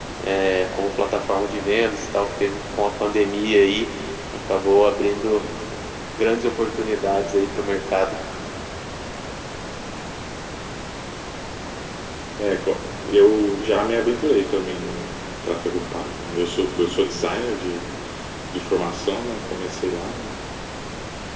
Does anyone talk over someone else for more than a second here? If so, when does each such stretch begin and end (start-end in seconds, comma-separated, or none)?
none